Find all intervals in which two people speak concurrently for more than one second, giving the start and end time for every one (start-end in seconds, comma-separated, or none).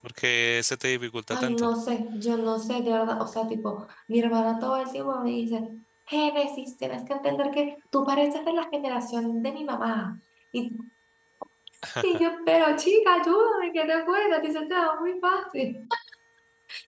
none